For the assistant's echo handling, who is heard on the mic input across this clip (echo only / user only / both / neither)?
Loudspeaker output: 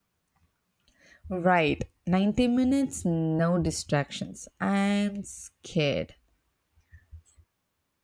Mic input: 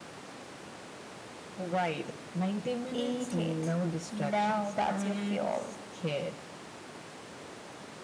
both